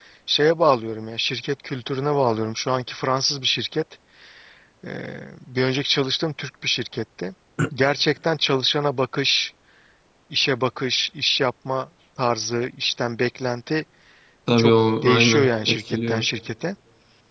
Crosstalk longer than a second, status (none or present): present